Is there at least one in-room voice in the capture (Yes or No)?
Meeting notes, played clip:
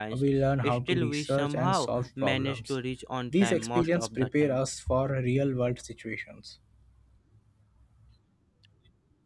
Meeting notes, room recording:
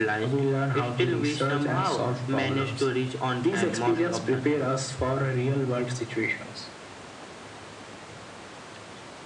No